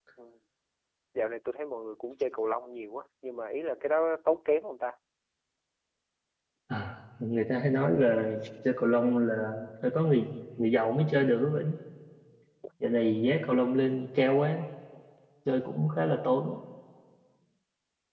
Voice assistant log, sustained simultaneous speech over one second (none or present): none